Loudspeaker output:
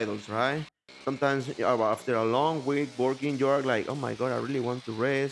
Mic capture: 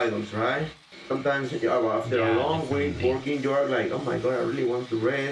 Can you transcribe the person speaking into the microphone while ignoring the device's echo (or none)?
yeah, definitely.